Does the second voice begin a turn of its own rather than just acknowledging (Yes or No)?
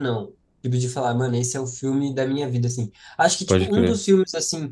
No